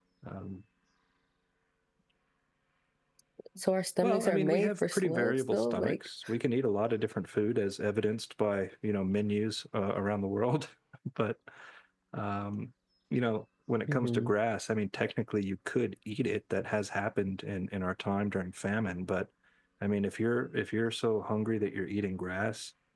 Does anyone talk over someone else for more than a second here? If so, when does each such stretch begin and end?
4.0-6.0

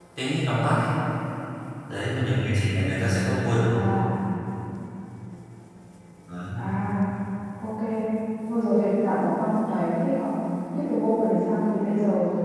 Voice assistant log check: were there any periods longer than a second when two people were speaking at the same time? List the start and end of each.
none

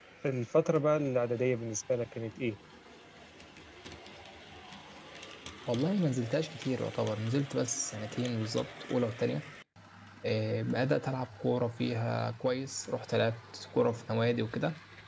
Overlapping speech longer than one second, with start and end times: none

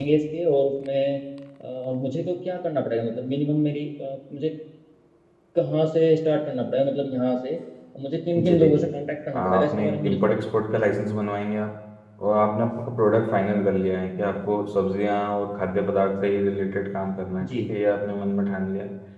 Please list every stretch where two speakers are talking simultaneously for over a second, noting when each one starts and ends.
9.4-10.9

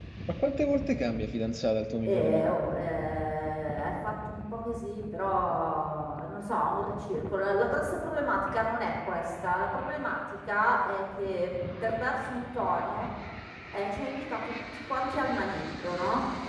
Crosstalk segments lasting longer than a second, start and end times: none

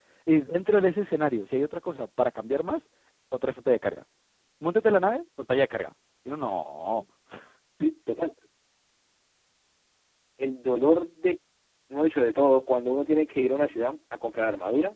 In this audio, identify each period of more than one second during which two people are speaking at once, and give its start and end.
none

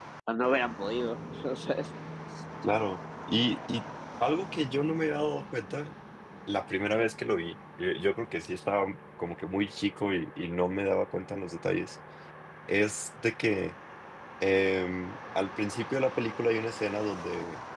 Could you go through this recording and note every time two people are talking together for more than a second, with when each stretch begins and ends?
none

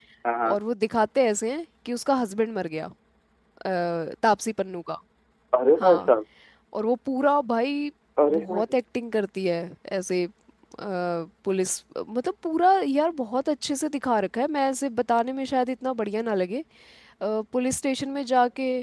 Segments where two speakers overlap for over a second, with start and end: none

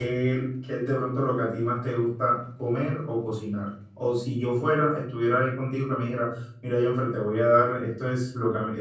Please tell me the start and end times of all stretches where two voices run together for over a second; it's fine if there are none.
none

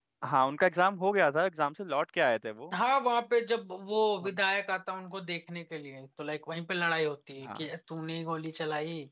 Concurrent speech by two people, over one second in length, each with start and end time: none

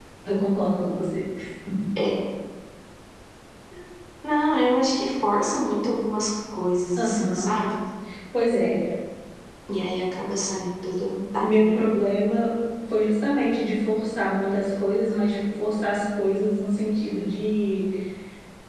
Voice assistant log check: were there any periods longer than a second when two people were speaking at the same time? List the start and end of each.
none

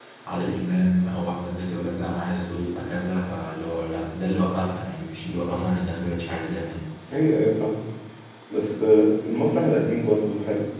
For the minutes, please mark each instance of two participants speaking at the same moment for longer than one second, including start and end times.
none

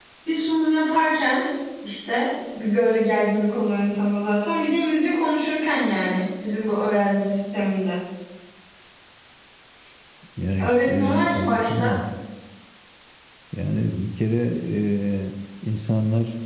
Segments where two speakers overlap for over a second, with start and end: 10.6-12.0

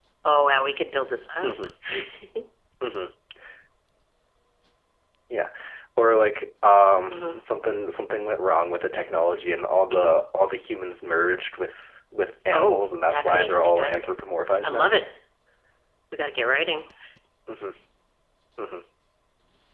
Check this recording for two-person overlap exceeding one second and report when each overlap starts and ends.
12.5-14.1

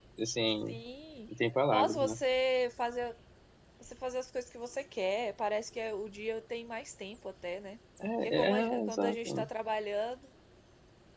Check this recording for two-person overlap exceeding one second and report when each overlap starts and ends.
8.2-9.4

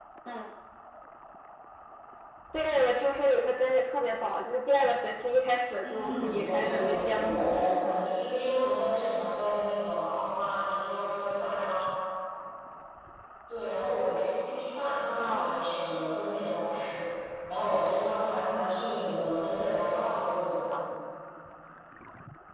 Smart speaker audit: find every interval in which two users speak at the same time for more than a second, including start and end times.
5.8-8.1

